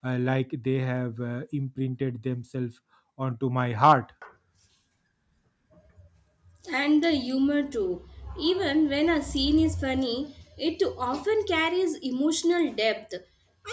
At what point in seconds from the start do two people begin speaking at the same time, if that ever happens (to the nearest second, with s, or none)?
none